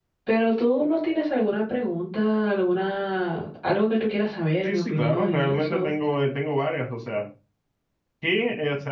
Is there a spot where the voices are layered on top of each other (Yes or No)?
Yes